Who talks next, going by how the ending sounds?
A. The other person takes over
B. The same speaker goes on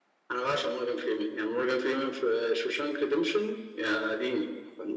A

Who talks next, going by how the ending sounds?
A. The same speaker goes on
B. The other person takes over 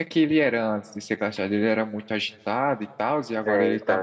B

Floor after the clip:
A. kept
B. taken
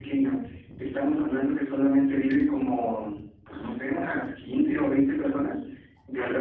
A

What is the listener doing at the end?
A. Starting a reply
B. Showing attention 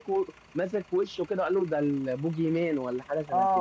A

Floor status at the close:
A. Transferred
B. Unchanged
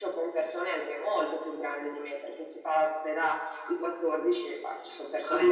A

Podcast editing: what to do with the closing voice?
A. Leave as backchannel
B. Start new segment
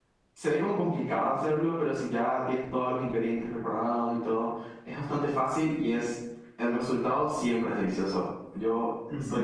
B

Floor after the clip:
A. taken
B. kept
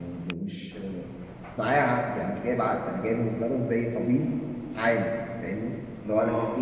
B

